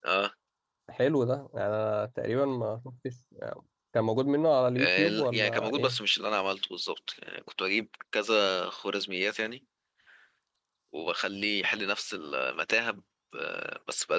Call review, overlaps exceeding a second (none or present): present